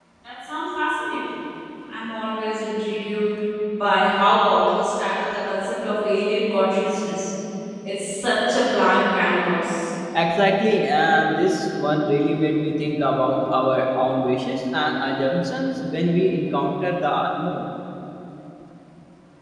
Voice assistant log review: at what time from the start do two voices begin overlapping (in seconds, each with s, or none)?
none